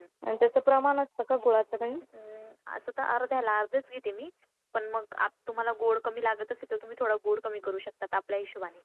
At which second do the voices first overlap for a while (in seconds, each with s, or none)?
none